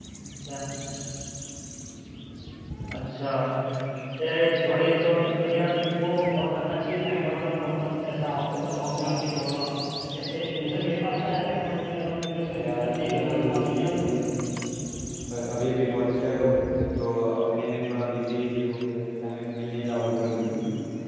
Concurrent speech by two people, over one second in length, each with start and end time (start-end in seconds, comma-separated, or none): 12.5-14.0